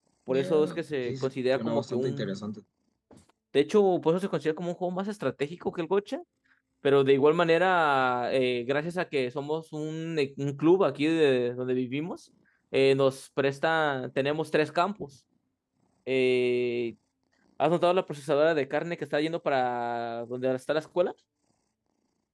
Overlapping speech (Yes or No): Yes